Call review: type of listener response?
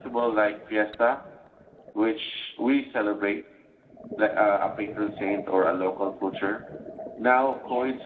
listening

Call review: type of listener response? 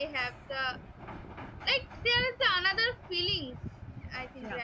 taking over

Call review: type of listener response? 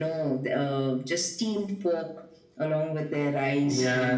taking over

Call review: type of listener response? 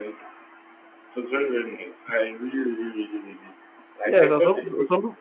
taking over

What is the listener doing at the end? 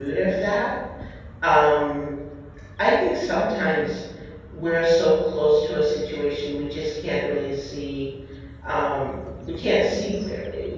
listening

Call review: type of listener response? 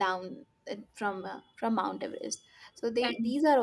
listening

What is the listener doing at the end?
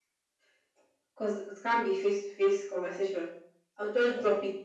listening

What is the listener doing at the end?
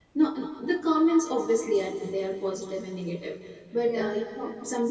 listening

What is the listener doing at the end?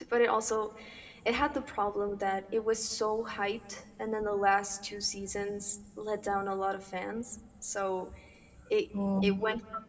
listening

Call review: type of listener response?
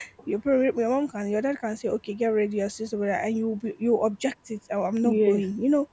listening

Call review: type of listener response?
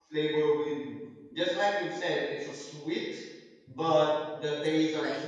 listening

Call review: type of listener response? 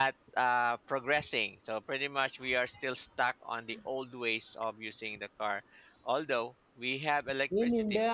taking over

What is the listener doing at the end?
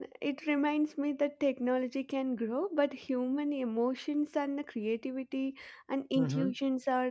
listening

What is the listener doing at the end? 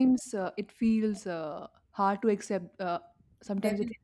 taking over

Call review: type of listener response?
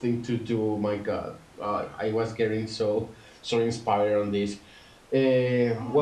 taking over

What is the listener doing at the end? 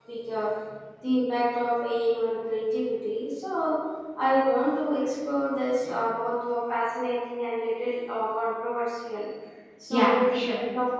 listening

